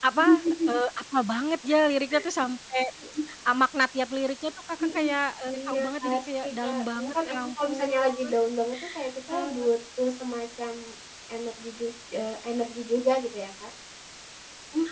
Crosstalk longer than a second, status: present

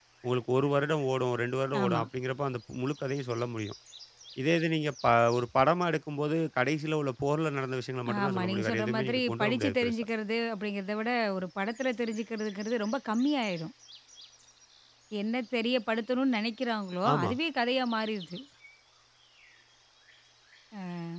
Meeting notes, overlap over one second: present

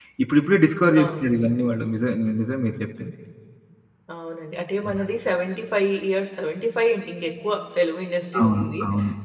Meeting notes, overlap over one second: none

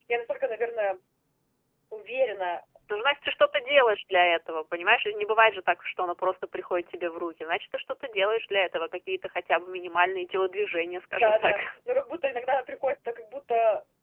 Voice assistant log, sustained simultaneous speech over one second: none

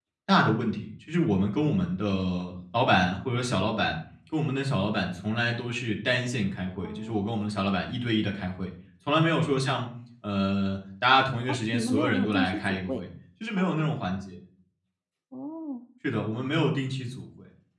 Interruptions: present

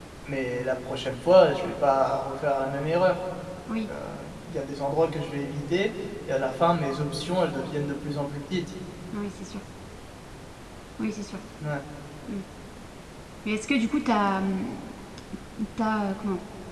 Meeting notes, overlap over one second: none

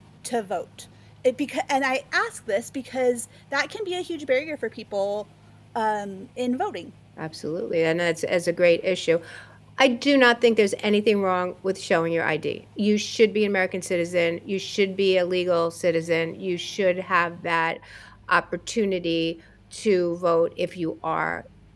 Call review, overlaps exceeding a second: none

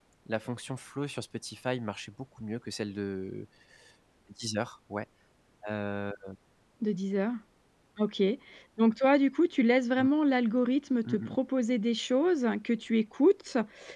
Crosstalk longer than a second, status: none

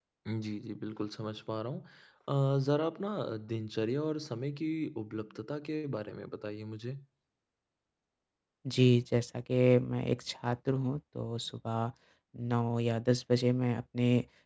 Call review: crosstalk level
none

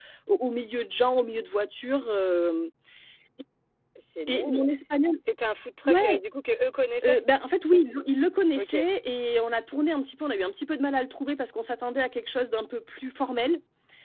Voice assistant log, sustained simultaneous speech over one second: none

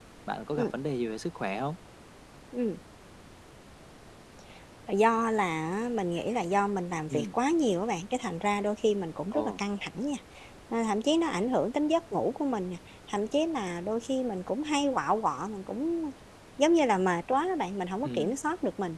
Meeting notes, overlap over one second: none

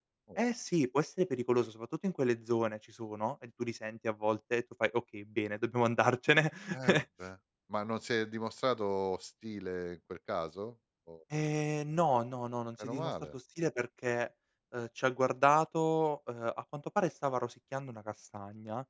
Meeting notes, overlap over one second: none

